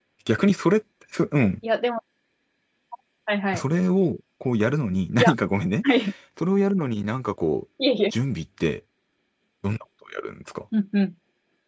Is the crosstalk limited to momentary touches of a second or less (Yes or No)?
Yes